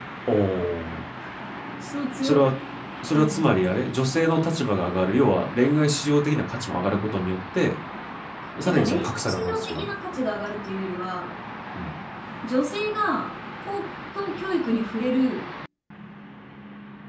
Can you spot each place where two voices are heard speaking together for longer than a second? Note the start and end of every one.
8.7-9.9

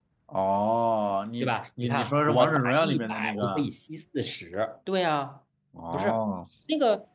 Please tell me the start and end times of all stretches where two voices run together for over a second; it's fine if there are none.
1.4-3.6

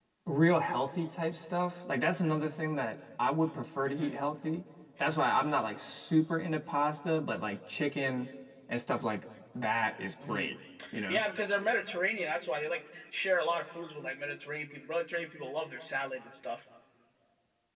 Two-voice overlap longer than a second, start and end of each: none

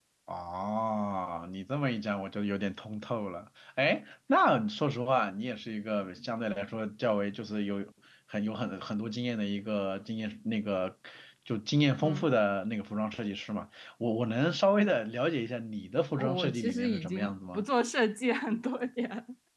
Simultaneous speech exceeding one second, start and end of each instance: 16.2-17.6

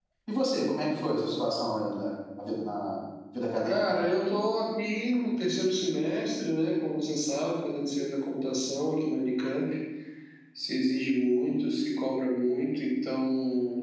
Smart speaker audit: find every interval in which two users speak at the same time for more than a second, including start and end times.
none

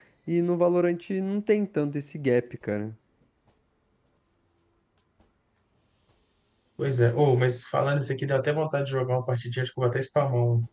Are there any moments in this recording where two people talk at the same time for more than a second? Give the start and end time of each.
none

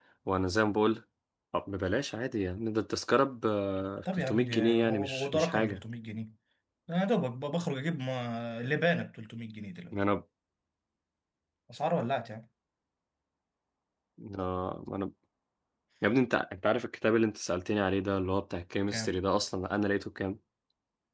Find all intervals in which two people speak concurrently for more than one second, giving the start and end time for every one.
4.1-5.8

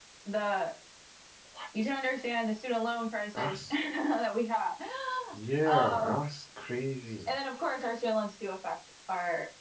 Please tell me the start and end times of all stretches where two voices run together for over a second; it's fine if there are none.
none

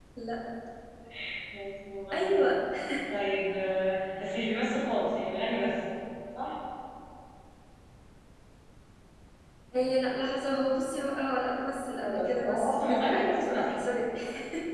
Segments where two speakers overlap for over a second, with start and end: 12.0-13.7

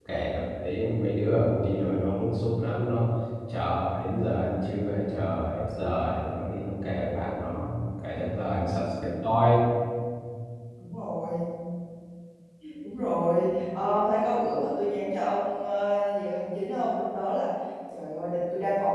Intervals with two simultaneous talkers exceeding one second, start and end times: none

